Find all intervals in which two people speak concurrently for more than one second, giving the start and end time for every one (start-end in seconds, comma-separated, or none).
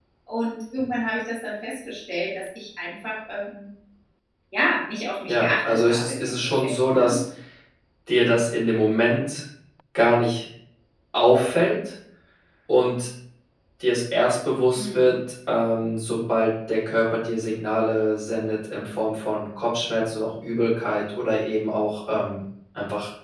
5.3-7.2